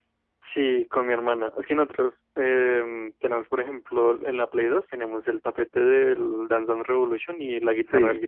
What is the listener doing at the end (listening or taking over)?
taking over